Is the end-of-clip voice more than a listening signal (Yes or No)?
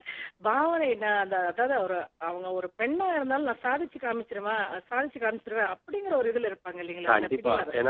Yes